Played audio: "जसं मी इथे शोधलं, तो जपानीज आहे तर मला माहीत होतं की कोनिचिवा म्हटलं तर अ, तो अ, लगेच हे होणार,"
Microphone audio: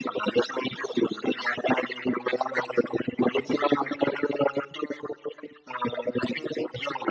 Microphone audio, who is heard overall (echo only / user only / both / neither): echo only